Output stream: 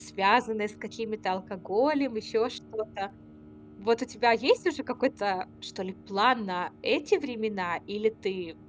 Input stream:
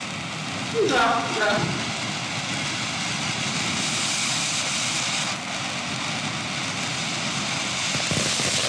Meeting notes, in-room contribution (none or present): present